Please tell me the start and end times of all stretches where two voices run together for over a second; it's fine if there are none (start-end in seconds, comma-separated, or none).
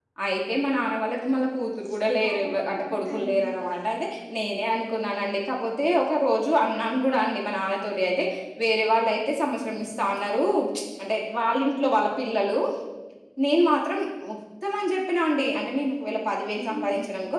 2.3-3.5